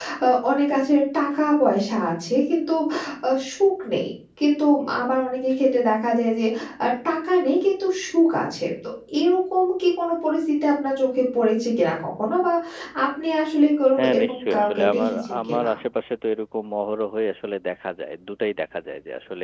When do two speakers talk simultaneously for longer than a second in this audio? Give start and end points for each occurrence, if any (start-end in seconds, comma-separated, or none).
14.0-15.7